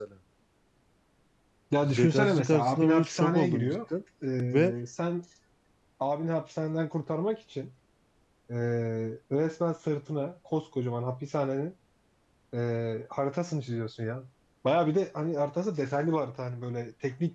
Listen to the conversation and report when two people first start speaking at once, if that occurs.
2 s

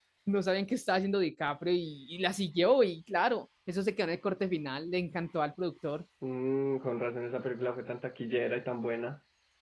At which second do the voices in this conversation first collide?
none

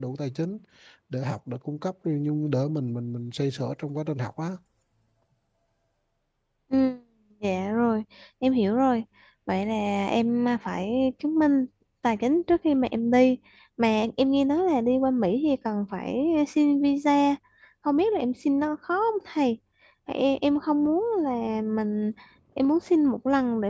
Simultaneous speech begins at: none

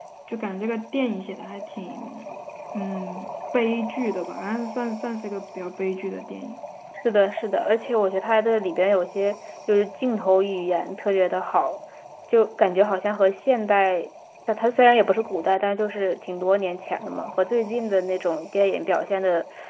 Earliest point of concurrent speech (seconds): none

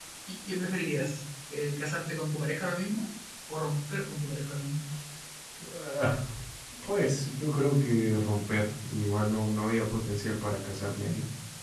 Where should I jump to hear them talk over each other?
none

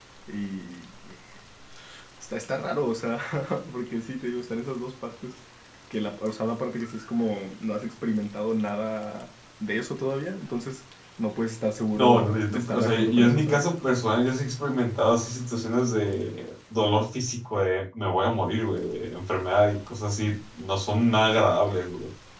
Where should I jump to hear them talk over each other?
12 s

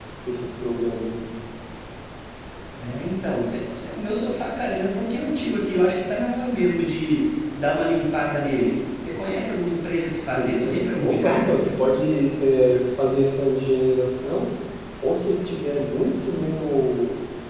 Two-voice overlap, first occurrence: 10 s

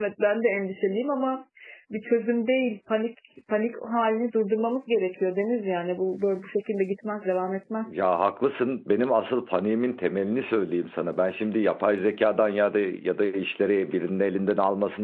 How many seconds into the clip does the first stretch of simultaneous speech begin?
none

